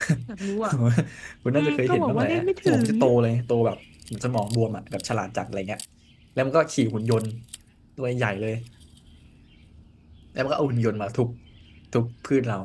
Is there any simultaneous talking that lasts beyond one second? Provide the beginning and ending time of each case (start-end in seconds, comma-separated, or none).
1.6-2.9